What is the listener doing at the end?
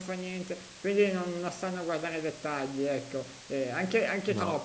listening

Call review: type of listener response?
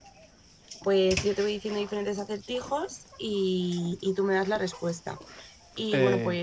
listening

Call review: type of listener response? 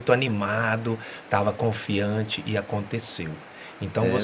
listening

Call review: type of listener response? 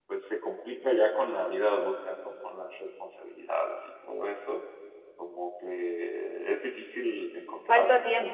listening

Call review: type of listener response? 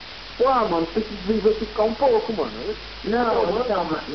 taking over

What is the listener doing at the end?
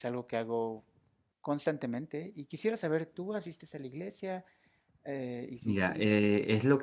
taking over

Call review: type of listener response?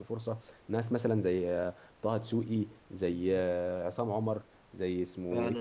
taking over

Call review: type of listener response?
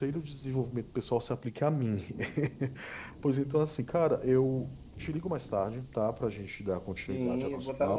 taking over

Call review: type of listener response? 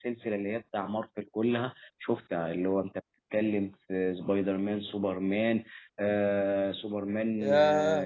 taking over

